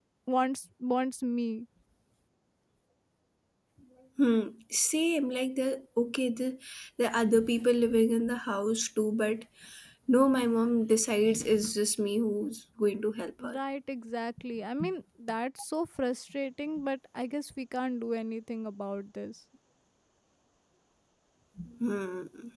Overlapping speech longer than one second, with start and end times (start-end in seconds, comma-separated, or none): none